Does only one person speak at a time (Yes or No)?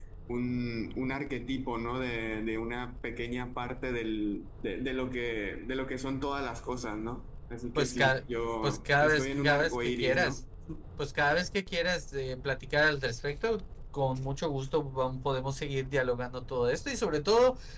No